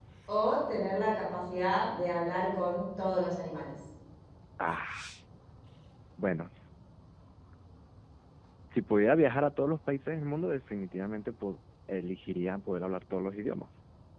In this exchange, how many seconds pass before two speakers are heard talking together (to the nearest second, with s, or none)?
none